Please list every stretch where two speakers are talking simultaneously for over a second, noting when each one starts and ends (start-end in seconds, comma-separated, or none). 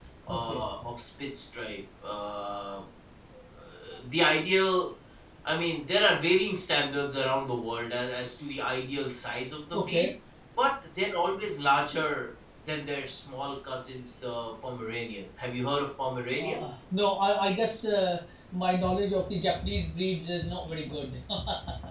none